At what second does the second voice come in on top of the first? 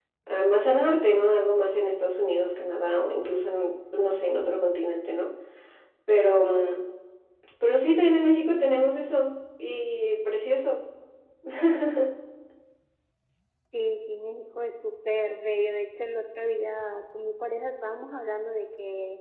none

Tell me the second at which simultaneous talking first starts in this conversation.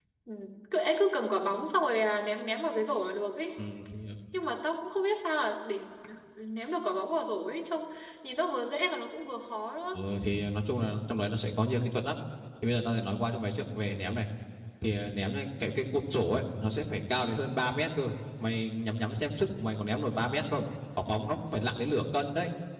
none

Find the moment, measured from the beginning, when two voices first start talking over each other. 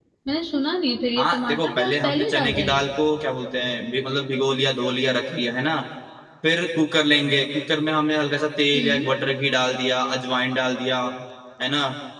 1.2 s

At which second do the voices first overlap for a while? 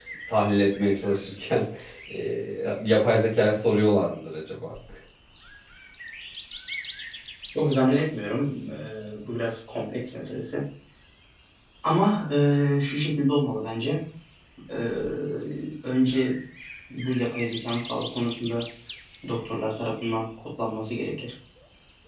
none

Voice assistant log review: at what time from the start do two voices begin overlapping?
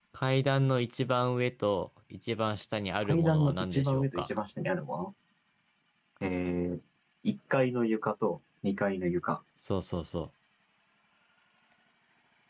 3.0 s

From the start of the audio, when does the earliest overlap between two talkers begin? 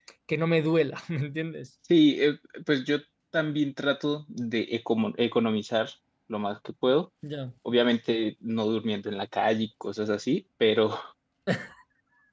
none

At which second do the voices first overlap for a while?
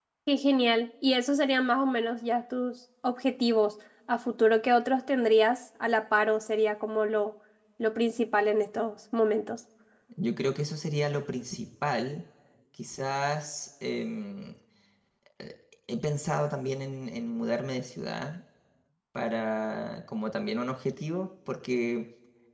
none

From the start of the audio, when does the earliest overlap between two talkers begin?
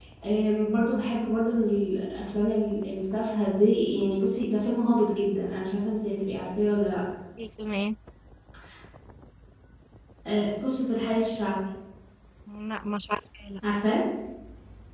none

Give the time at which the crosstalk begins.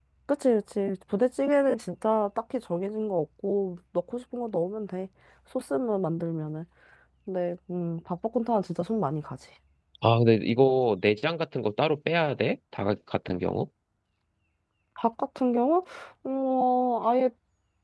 none

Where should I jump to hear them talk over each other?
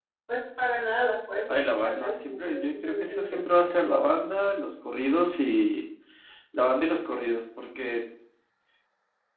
1.5 s

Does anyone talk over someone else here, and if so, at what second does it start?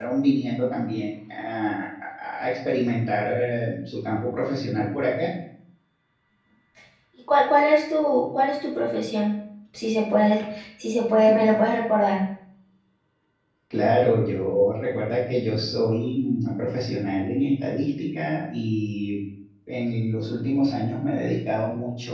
none

